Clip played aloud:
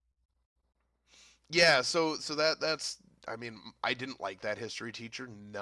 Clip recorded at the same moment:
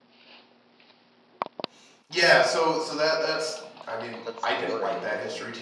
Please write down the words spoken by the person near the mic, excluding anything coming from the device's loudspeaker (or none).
that's boring.